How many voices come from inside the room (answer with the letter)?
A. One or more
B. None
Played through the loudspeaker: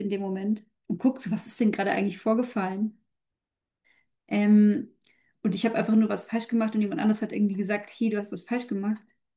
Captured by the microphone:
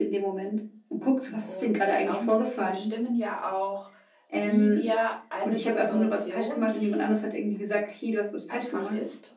A